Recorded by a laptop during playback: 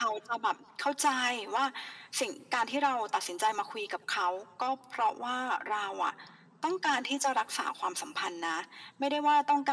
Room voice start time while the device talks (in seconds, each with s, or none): none